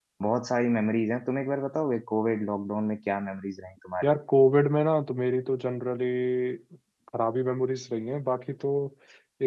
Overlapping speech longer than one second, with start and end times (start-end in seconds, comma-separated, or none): none